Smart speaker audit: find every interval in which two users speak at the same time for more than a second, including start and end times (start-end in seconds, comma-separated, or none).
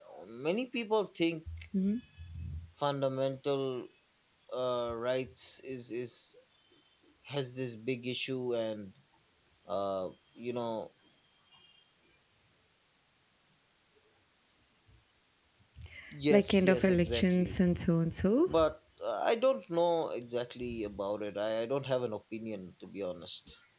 16.3-17.6